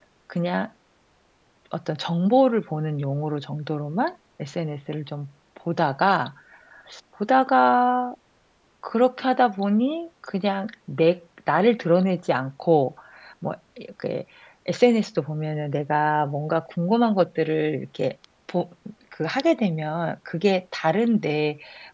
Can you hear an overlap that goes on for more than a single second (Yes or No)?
No